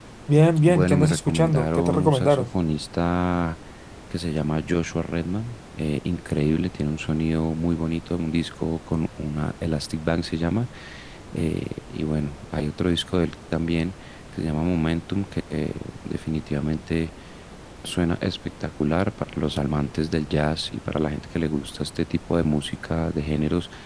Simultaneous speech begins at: 0.7 s

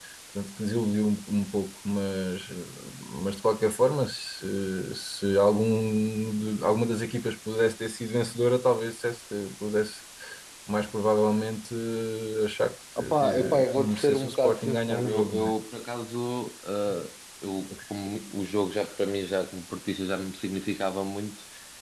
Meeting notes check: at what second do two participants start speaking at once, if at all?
13.0 s

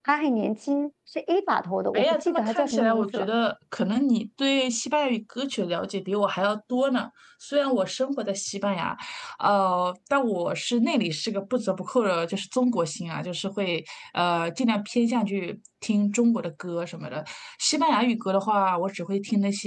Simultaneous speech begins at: 1.9 s

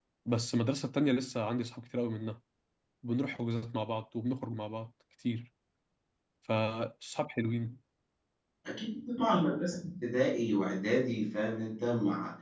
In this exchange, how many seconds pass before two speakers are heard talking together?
none

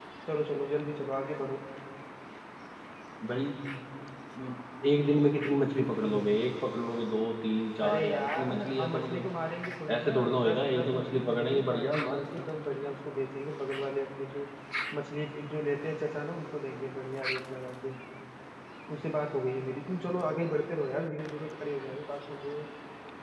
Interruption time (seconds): 7.8 s

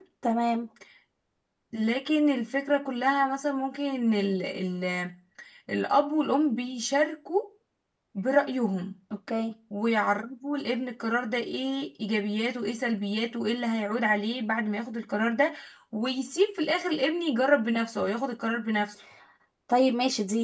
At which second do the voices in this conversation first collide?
none

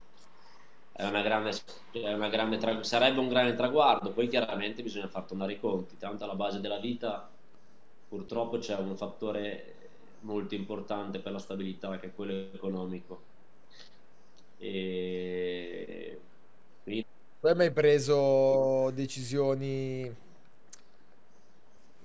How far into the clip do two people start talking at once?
none

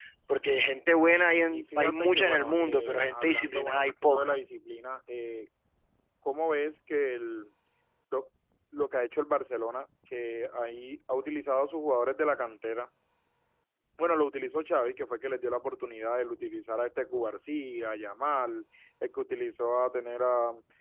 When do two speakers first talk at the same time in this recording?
1.5 s

